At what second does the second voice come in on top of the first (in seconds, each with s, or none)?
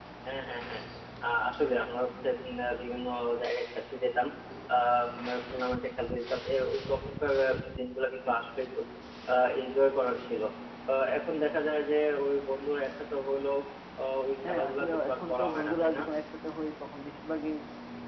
14.5 s